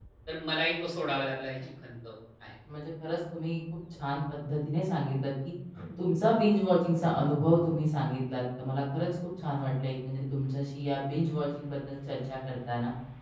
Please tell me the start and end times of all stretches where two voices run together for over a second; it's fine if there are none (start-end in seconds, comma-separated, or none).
none